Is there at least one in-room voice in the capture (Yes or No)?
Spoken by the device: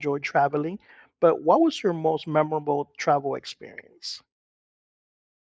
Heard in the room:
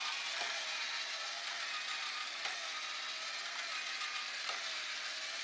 No